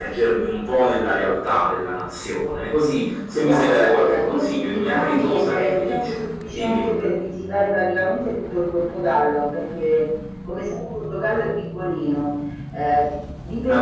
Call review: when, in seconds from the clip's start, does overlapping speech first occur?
3.4 s

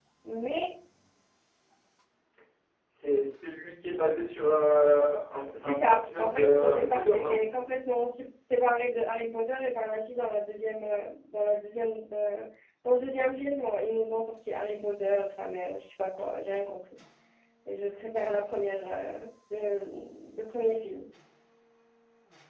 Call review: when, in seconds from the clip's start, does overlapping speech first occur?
5.5 s

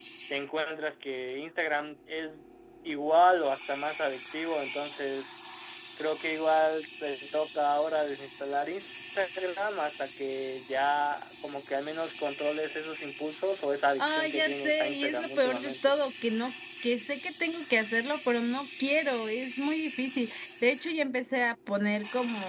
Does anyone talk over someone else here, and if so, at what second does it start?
14.0 s

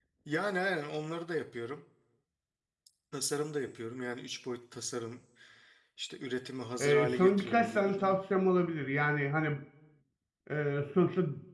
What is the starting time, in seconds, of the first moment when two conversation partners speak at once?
6.8 s

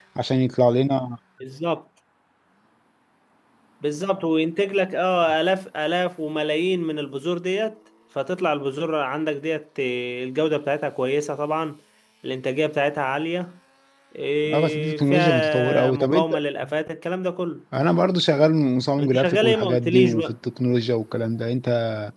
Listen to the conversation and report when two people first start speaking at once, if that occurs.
14.5 s

